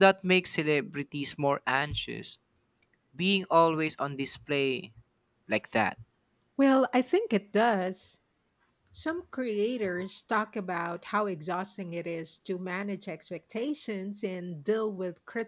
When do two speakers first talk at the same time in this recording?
none

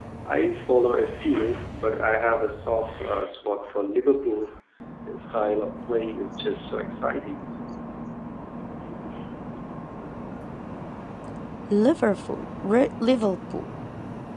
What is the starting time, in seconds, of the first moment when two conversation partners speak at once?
none

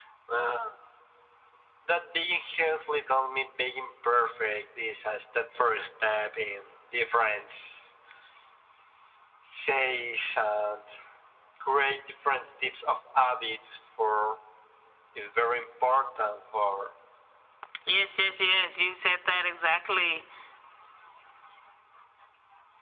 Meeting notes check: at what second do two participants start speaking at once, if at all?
none

